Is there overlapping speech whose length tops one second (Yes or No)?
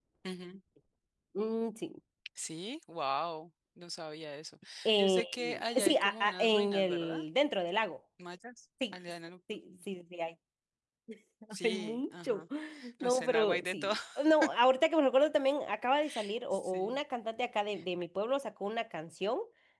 Yes